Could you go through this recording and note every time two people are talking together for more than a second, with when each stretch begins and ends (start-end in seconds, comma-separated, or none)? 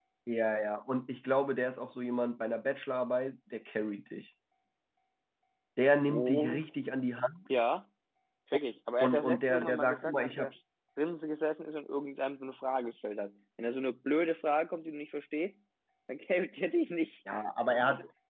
9.0-10.5